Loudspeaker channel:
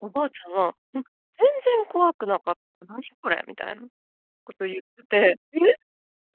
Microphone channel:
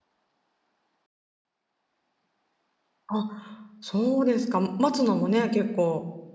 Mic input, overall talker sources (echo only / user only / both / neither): user only